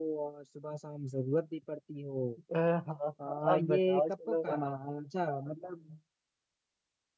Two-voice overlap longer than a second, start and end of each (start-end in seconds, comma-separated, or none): 3.2-4.5